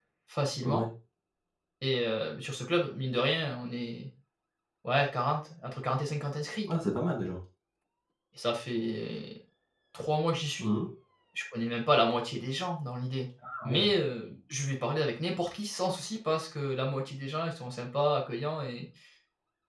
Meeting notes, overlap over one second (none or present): none